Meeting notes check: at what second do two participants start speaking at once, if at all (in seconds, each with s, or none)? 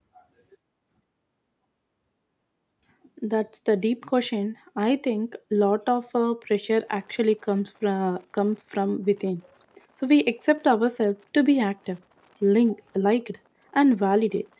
none